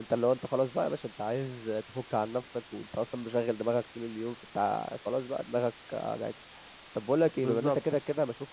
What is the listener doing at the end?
listening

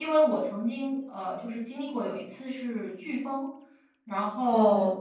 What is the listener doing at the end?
listening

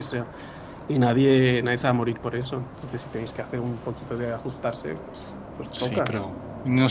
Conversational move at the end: taking over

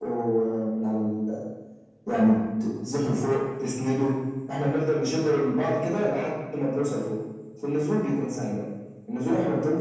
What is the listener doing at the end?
listening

